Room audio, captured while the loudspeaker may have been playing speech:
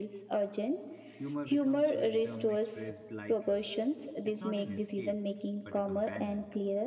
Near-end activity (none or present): present